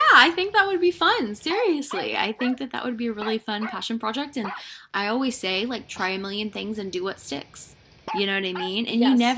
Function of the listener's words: listening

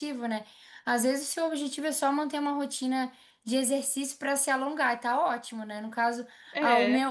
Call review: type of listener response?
listening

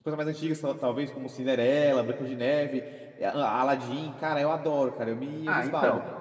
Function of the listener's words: taking over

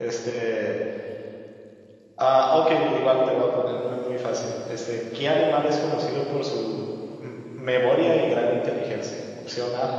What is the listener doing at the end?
listening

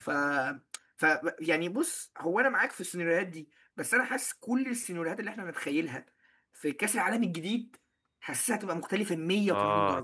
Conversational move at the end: taking over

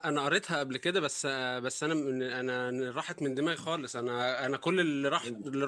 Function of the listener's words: listening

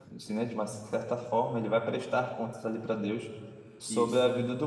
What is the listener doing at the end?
listening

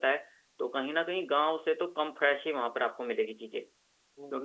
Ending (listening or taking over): taking over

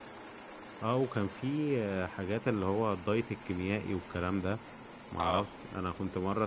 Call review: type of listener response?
listening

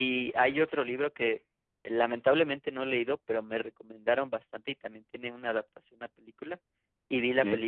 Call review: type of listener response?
listening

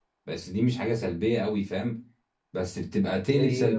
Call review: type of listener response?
listening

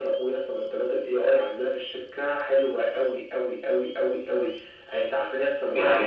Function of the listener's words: taking over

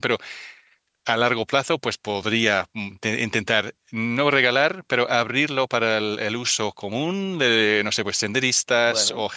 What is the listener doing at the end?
listening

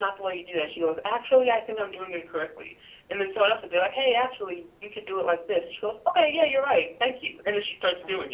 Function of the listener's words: taking over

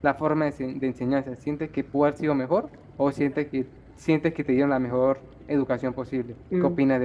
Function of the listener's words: taking over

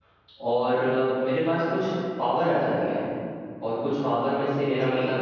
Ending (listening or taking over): listening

